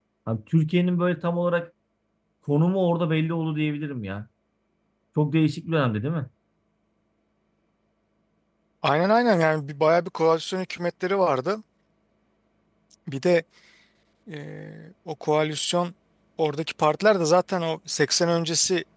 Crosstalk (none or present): none